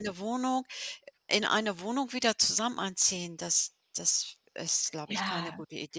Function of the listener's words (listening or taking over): taking over